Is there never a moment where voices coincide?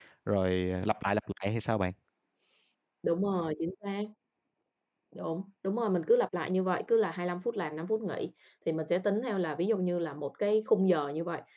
Yes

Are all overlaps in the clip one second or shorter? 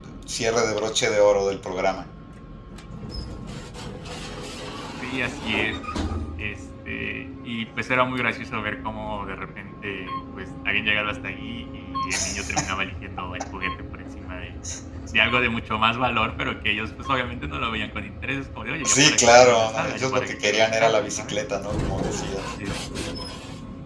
No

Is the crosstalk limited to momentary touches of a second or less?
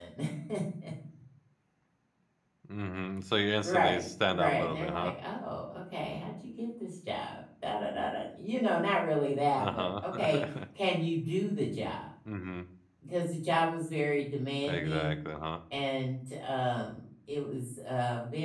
No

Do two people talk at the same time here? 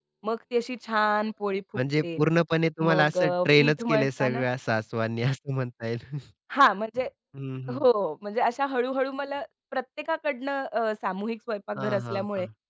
Yes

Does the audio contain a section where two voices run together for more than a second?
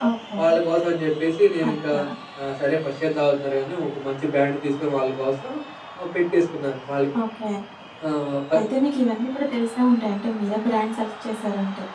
No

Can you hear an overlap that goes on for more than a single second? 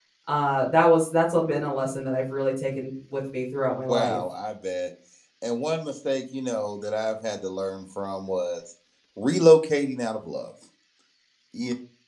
No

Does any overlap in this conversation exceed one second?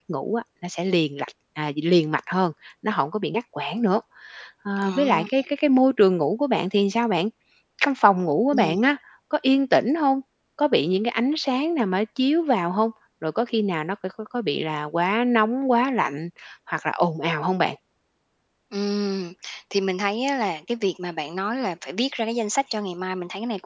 No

